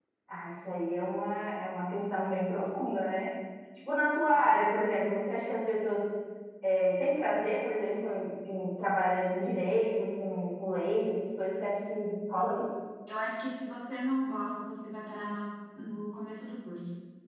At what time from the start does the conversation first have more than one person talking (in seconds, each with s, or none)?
none